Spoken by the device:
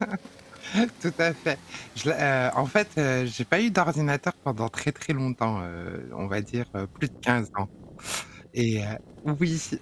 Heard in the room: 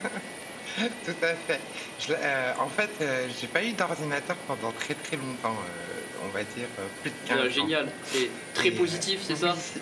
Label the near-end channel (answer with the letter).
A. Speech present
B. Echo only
A